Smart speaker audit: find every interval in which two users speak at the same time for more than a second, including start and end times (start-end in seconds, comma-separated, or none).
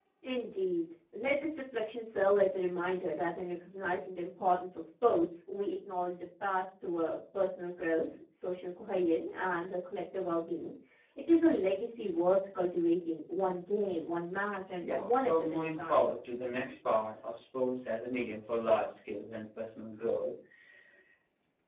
14.8-16.0